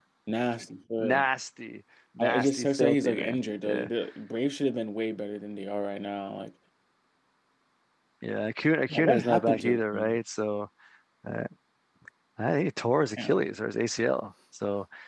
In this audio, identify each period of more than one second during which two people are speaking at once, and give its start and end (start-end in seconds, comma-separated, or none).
2.2-3.9, 8.9-10.2